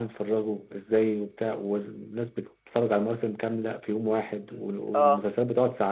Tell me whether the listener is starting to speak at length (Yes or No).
No